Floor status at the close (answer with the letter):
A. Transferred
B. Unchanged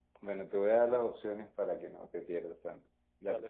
B